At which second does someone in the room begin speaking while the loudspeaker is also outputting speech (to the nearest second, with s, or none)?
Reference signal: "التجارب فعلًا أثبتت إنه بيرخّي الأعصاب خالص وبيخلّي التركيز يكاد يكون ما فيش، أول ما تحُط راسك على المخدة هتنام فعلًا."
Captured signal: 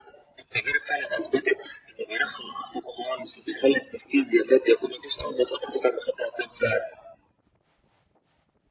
none